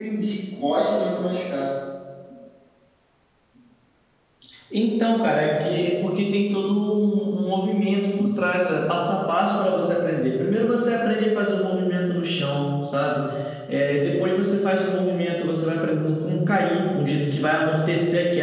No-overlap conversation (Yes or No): Yes